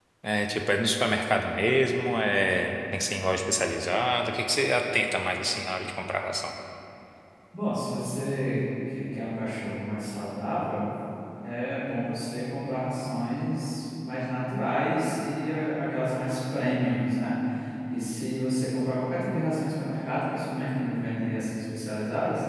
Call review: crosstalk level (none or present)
none